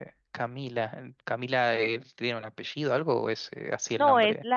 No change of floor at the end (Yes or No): No